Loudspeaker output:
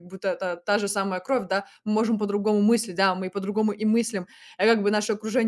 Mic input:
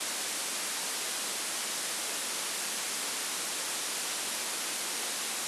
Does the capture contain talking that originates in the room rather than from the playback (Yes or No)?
No